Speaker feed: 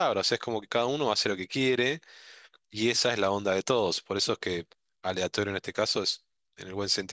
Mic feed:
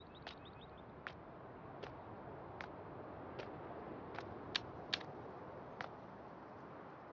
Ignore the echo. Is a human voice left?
No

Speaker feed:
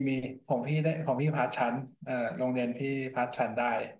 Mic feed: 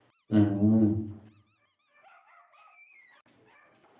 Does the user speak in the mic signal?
Yes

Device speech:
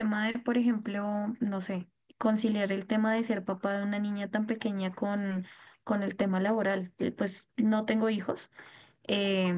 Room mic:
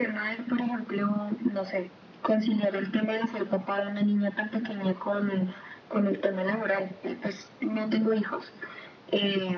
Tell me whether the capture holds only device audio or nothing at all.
Yes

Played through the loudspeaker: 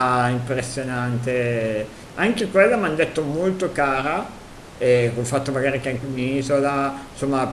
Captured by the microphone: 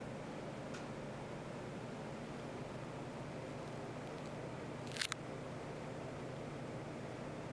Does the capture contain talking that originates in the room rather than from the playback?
No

